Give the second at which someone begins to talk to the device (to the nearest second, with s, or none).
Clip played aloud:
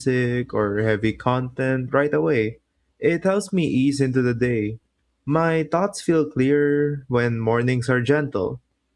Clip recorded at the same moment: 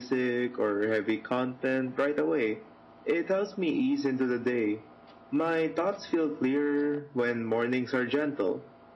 none